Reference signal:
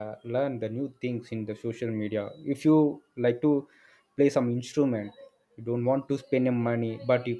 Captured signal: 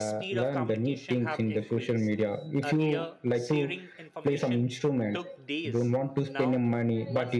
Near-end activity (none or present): present